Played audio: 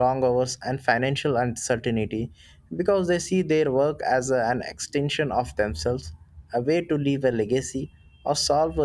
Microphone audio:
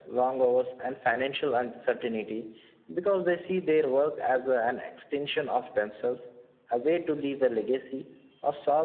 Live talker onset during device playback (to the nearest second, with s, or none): none